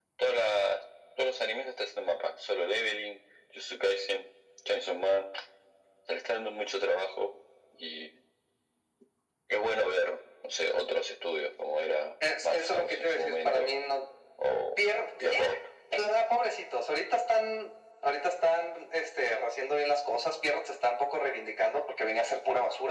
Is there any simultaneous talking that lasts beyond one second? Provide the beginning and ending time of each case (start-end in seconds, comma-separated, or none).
12.4-13.7